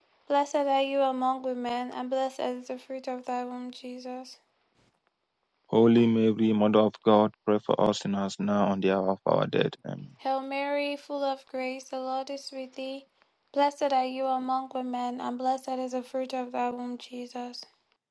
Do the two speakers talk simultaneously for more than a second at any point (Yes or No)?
No